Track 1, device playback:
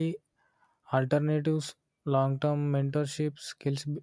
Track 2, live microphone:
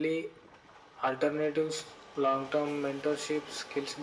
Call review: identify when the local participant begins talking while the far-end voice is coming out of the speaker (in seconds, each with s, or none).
none